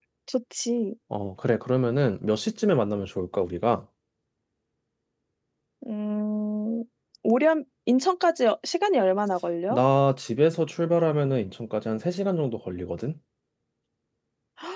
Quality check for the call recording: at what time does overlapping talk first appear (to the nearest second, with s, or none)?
none